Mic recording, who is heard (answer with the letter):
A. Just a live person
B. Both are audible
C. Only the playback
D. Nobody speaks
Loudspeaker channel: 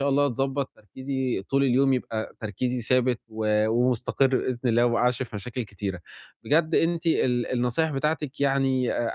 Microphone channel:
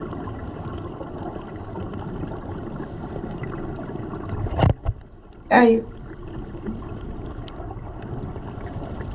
A